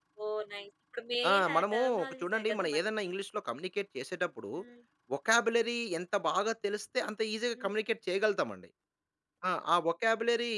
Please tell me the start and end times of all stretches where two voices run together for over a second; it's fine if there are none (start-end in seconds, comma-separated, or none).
1.3-3.1